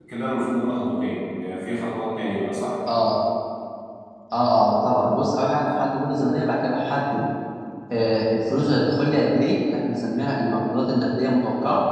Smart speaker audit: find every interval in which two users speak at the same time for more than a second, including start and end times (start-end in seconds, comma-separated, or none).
none